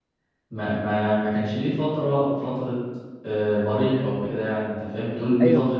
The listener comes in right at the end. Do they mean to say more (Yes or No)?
Yes